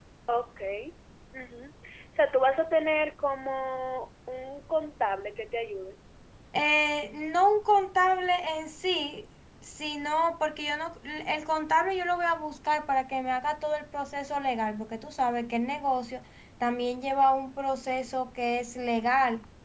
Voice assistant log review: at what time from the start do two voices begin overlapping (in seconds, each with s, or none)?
none